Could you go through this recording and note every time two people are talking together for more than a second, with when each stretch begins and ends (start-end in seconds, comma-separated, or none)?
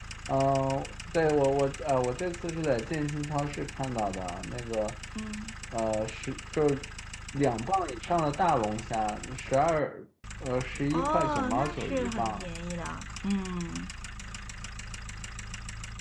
10.9-12.5